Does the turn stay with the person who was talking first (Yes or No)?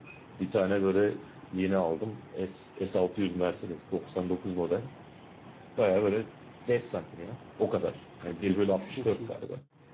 Yes